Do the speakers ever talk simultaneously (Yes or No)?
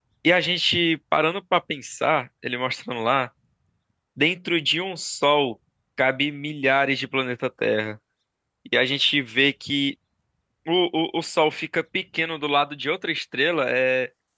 No